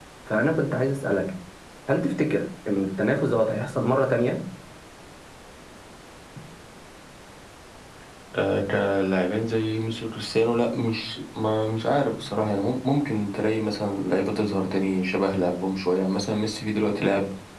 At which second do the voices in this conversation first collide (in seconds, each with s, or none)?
none